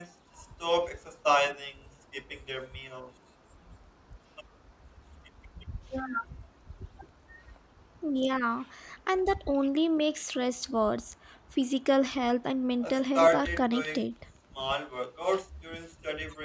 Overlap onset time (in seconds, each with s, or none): 12.8 s